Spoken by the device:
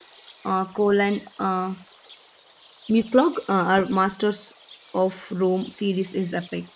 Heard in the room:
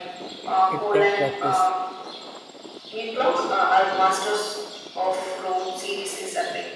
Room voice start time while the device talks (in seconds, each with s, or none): 0.7 s